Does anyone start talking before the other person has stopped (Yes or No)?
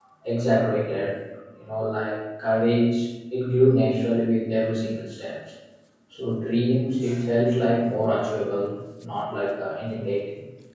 No